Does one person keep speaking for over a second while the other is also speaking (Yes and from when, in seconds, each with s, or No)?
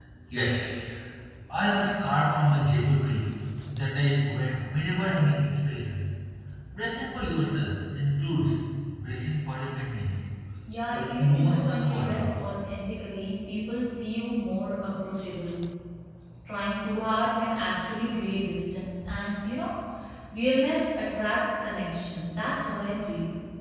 Yes, from 10.9 s